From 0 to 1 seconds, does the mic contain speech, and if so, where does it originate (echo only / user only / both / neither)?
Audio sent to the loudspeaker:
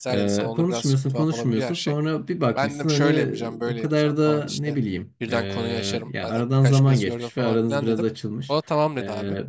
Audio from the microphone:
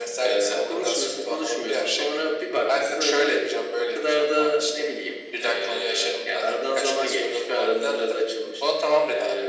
echo only